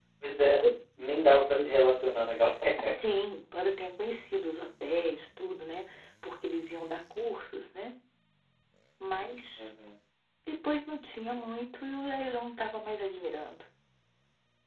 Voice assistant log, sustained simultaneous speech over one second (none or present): none